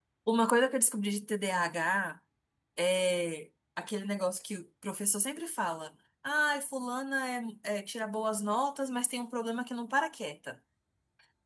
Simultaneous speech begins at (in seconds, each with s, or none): none